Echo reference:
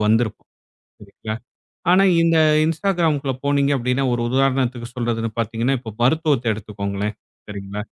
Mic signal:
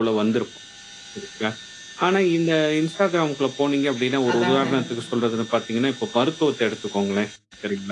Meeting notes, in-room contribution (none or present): present